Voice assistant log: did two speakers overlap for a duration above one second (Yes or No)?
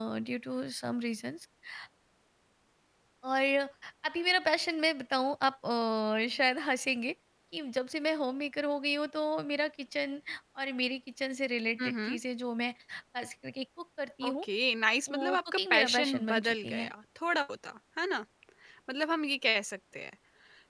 Yes